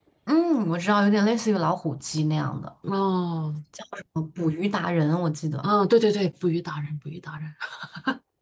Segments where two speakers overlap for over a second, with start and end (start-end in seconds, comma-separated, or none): none